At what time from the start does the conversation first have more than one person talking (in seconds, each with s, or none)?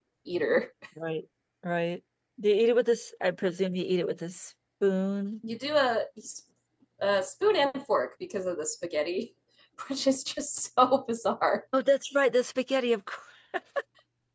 none